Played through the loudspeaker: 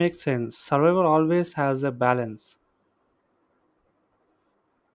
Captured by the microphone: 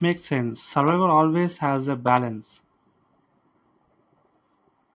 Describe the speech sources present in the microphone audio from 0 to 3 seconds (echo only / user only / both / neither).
echo only